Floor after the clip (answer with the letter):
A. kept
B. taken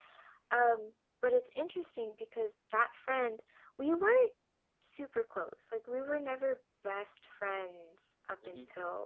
A